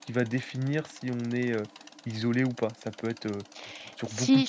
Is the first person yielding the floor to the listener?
Yes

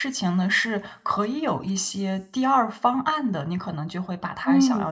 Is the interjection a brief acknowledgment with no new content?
Yes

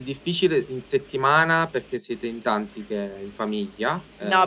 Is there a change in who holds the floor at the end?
Yes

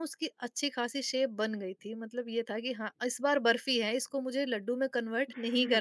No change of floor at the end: No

